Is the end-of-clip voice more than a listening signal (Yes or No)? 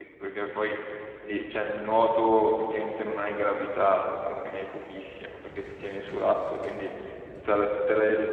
No